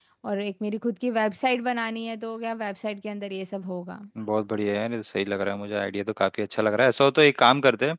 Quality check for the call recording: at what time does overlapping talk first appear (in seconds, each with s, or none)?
none